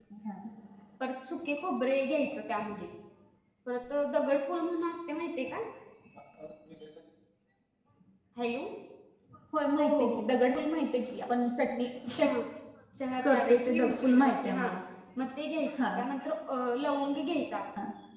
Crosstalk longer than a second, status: present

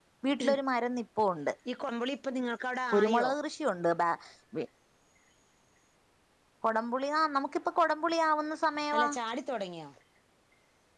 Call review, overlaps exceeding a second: none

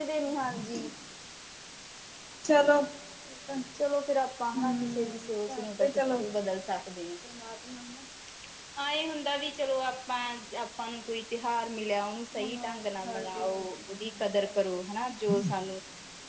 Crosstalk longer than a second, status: present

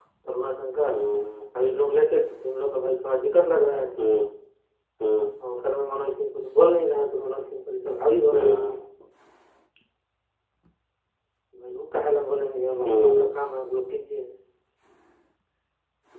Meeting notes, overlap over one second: none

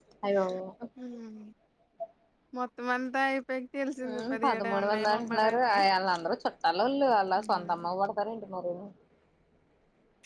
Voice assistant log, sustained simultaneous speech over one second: present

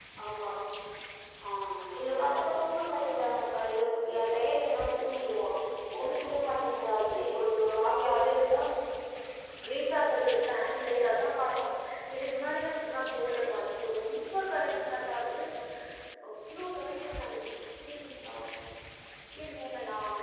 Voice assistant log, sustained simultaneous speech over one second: none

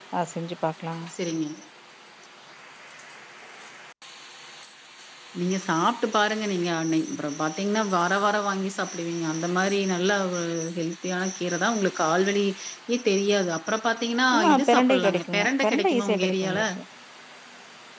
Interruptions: present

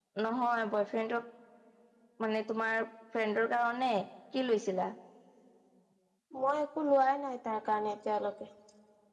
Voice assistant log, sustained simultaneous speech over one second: none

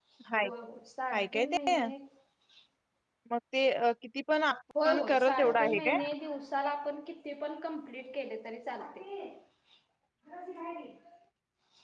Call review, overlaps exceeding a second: present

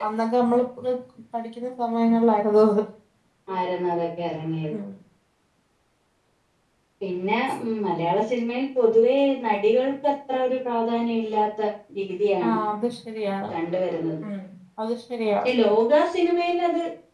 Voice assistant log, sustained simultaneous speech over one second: none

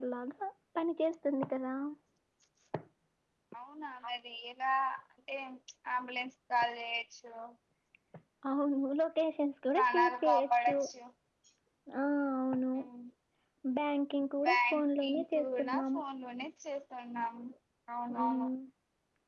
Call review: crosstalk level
present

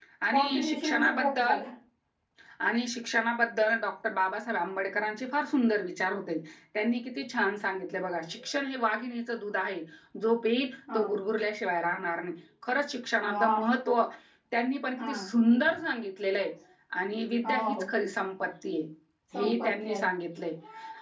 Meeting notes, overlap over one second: present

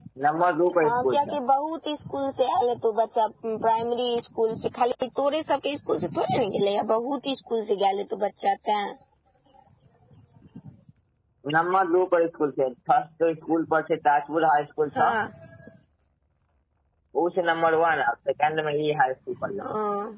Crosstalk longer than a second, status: none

